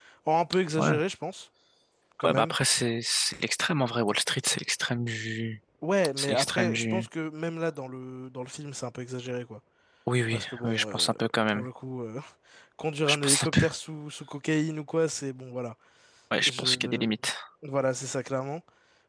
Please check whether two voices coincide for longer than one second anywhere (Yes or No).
Yes